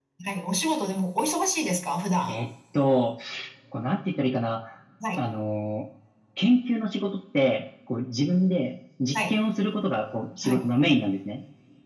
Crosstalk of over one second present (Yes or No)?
No